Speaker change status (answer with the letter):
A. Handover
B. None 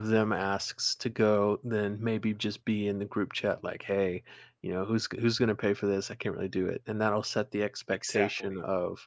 B